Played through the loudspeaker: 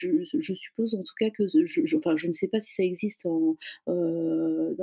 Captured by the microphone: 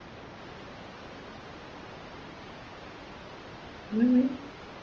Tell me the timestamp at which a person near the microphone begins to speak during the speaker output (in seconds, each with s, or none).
3.9 s